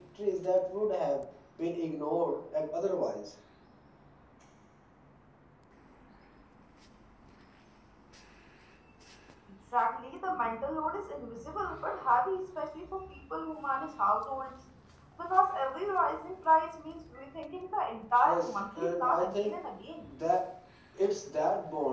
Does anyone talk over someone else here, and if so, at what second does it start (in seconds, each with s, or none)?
18.2 s